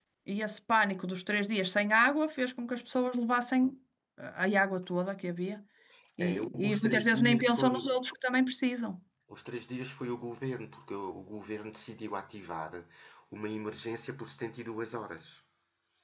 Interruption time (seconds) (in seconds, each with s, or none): 6.2 s